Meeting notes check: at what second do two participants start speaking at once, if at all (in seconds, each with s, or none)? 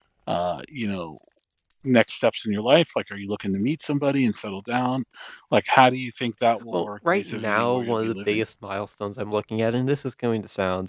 6.7 s